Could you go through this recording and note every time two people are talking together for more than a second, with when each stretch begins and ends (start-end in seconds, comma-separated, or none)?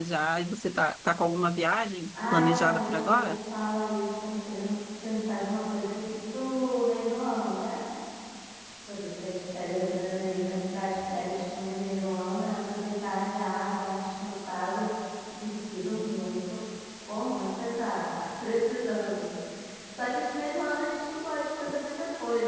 2.1-3.4